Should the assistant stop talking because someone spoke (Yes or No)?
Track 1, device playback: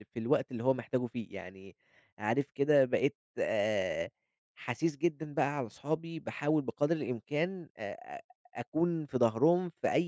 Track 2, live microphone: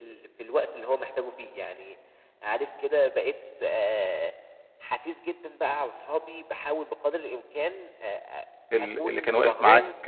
Yes